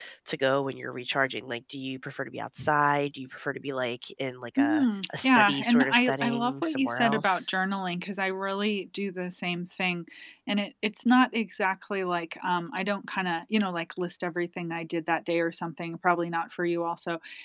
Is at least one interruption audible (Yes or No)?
Yes